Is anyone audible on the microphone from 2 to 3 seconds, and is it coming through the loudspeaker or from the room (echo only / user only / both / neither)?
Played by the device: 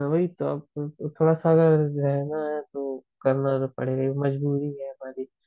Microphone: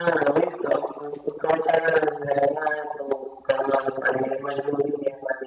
echo only